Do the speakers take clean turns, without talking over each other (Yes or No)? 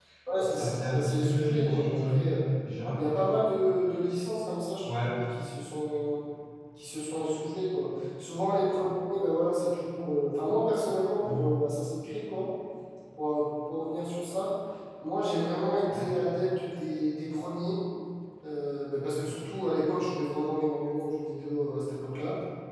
No